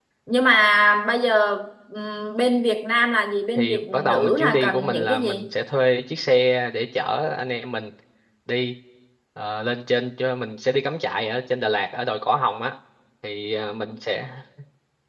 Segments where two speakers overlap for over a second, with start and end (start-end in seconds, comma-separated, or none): 3.5-5.5